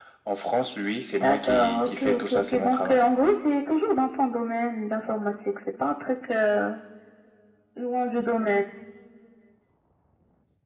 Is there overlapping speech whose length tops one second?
Yes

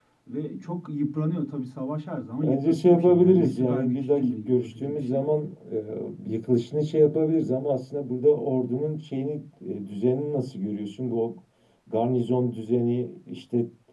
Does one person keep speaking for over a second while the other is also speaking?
Yes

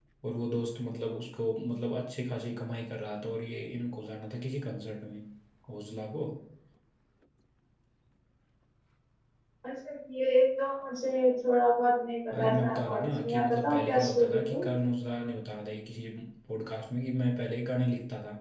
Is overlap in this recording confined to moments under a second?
No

